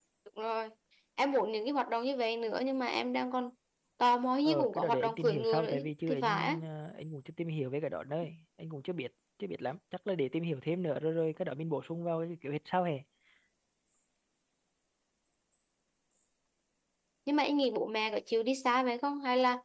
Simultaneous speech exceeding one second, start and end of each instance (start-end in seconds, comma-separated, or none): 4.5-6.6